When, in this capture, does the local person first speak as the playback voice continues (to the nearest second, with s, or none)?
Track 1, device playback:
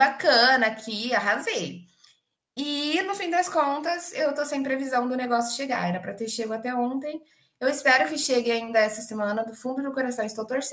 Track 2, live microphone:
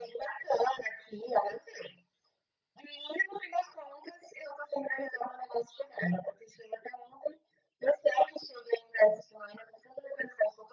none